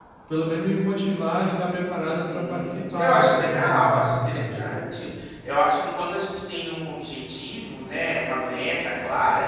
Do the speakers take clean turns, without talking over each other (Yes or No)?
No